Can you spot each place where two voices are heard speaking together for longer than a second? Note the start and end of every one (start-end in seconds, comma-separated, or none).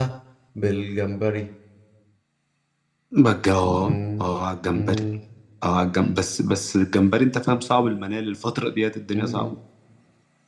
none